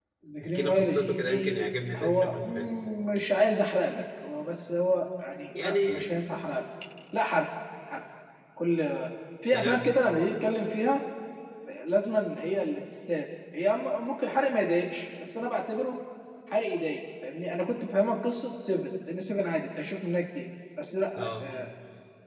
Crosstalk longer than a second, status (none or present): present